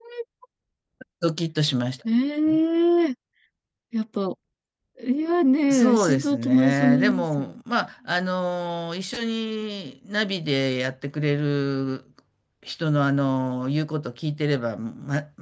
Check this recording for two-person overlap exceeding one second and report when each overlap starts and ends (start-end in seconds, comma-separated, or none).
5.7-7.6